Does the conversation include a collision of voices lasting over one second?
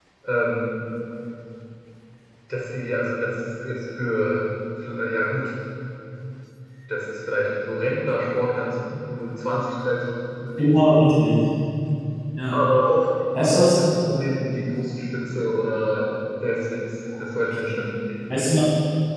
No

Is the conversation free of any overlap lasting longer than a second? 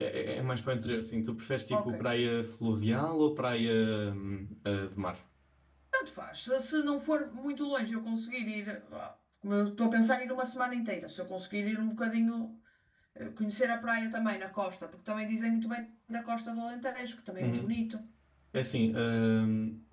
Yes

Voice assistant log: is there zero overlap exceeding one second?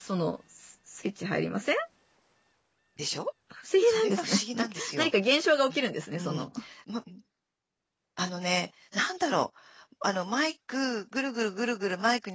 No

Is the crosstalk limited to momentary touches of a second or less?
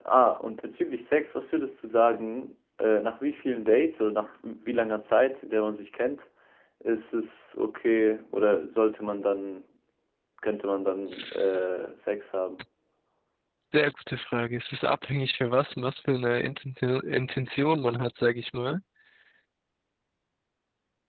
Yes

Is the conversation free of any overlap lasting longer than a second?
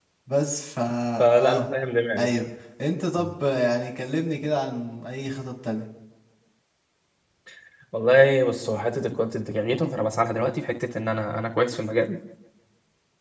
Yes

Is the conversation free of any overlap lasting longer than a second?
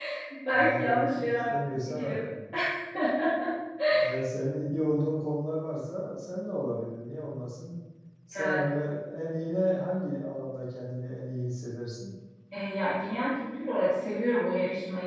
No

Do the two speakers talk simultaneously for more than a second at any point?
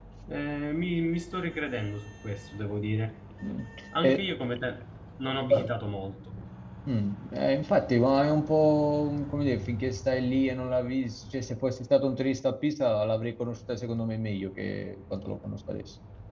No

